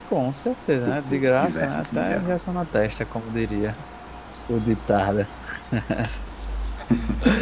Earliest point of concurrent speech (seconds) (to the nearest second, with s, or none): 1 s